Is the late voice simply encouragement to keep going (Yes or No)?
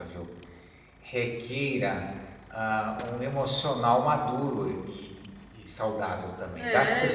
No